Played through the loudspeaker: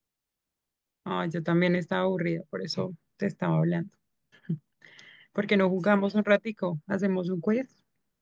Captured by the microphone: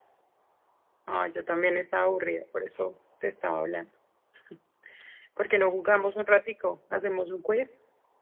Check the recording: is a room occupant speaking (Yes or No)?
No